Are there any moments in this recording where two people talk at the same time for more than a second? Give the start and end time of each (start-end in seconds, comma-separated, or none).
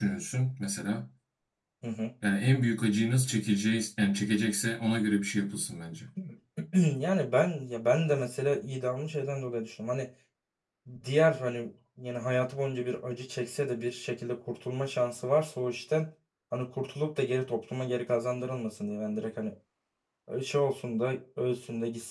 none